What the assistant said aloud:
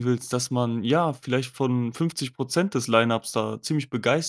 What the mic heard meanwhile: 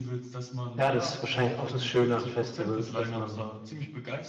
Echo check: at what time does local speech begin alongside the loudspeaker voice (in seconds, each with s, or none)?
0.8 s